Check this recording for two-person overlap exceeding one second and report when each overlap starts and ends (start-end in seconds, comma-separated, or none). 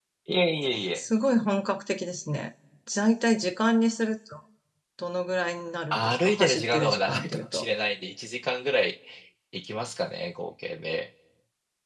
5.9-7.7